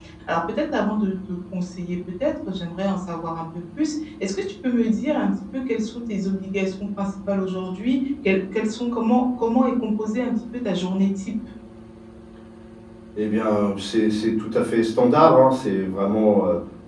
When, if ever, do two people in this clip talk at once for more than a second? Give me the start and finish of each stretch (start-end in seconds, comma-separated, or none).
none